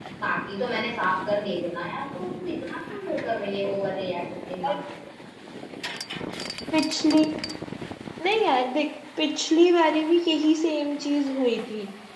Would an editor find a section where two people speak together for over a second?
No

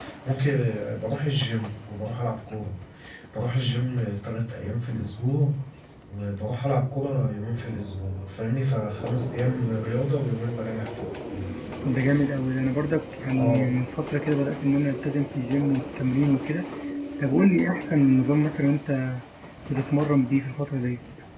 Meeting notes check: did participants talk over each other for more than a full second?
No

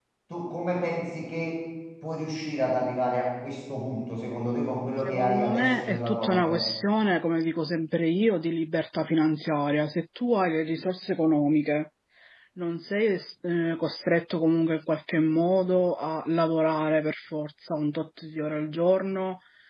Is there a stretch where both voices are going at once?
Yes, from 5.0 s

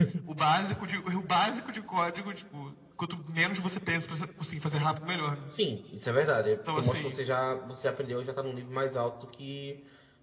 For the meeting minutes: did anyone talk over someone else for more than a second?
No

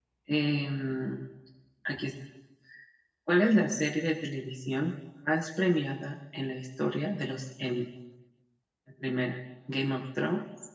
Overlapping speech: No

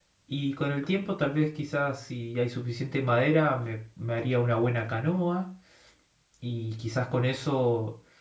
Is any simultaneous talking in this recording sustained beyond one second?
No

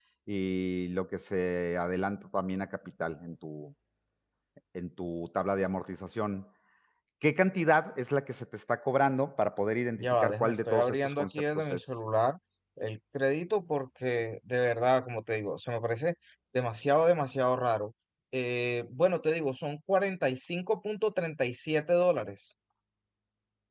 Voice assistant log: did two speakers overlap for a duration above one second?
Yes, from 10.0 s

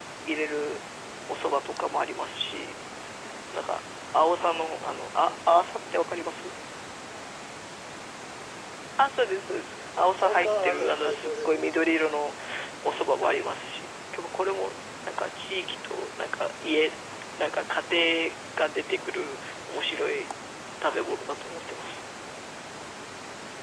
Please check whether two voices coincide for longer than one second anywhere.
Yes, from 10.2 s

